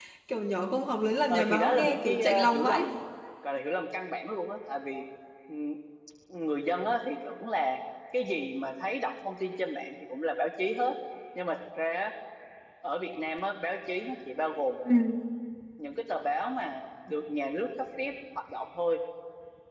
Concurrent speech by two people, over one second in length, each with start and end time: 1.3-2.8

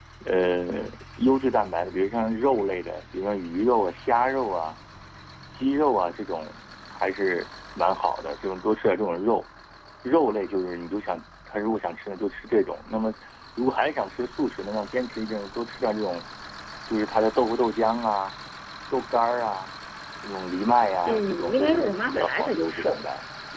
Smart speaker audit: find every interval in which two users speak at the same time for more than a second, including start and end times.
21.1-23.0

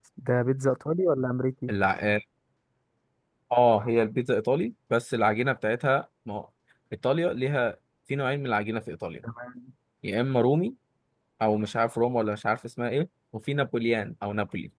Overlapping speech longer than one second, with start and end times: none

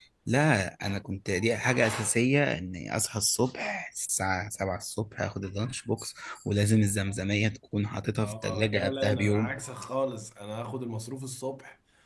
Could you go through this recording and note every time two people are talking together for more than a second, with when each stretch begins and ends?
8.2-9.6

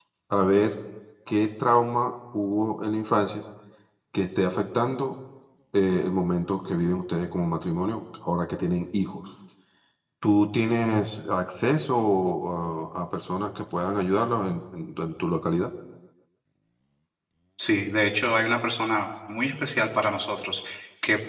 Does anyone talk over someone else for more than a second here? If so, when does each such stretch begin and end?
none

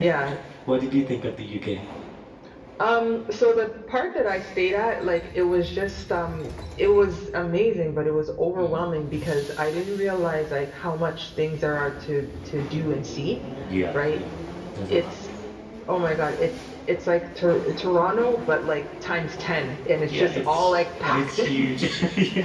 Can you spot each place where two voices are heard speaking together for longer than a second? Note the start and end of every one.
20.0-21.8

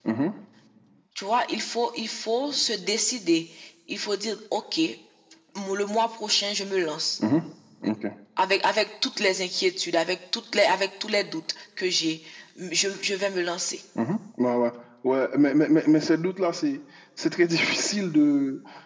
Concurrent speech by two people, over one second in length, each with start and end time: none

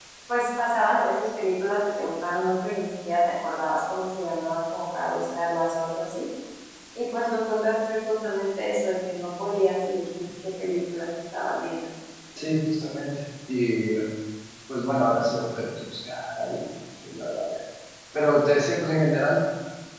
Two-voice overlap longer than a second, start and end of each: none

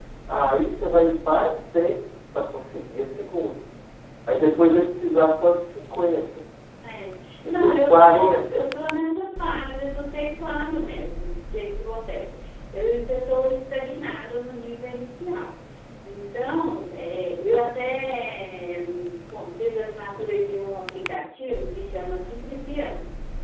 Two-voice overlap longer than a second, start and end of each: 7.4-8.6

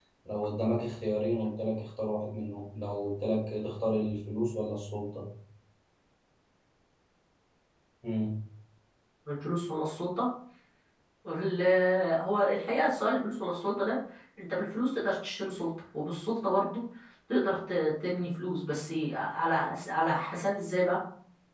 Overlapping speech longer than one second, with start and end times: none

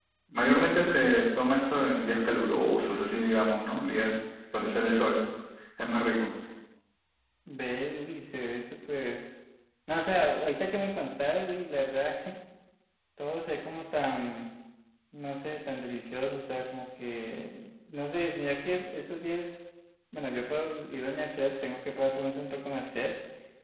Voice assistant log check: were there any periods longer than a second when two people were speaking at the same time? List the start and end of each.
none

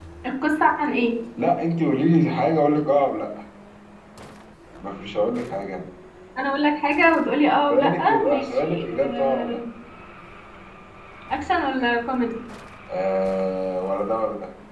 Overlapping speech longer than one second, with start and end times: 7.7-9.6

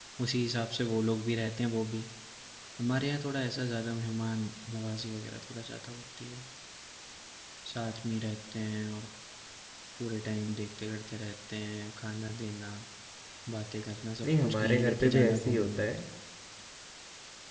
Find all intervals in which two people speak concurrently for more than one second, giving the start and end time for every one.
14.2-15.8

